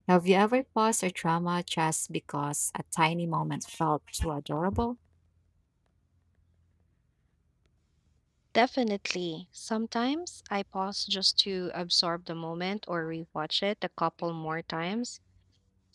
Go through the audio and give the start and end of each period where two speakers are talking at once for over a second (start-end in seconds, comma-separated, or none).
none